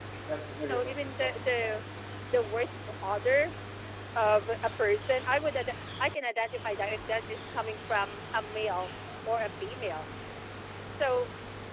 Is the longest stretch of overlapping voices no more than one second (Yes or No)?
No